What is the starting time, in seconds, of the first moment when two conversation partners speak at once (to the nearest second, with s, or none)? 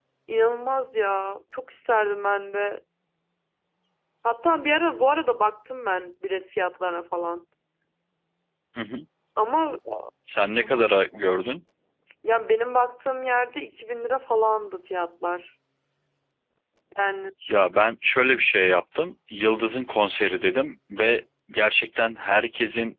none